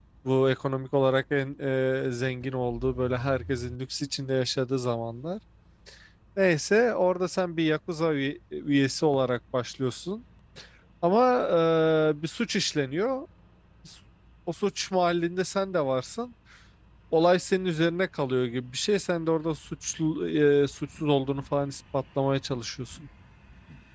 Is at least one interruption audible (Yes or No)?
No